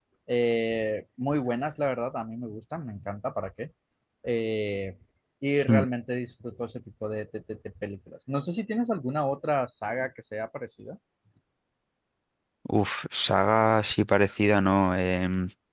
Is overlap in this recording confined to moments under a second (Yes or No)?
Yes